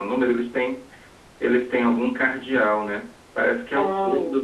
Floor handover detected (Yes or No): No